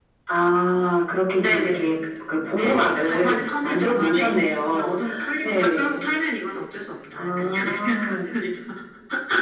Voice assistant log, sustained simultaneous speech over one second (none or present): present